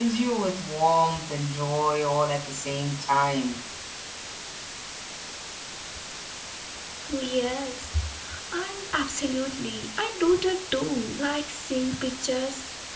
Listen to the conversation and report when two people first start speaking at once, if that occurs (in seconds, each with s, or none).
none